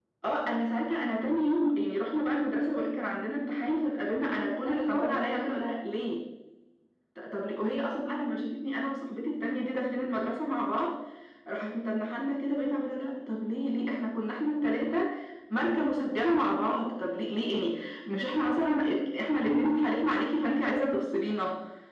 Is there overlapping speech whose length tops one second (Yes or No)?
Yes